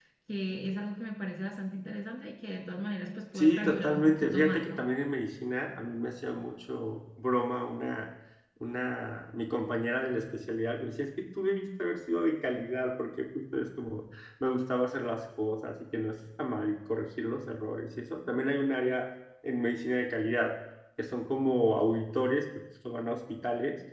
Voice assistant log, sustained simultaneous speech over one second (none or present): present